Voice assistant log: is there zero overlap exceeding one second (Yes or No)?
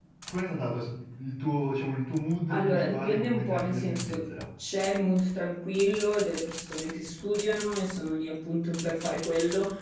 No